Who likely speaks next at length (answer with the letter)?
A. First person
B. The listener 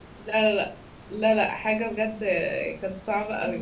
B